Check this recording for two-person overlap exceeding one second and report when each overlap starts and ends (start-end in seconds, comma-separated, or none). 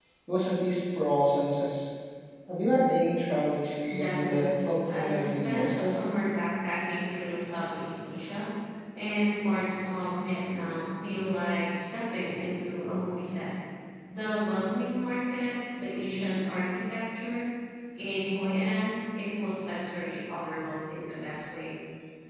3.9-6.0